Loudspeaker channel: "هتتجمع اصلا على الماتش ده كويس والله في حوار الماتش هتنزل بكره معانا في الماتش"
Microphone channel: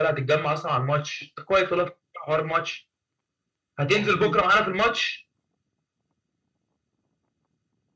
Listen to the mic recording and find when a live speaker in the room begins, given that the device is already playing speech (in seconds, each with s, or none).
3.9 s